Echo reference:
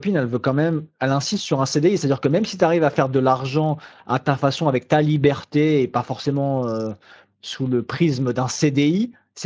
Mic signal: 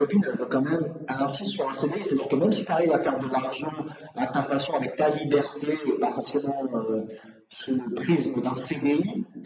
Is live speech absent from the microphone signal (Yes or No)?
Yes